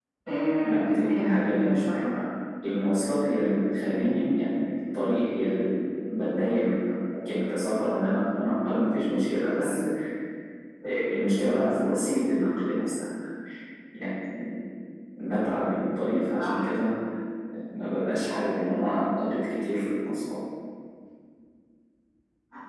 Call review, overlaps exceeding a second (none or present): present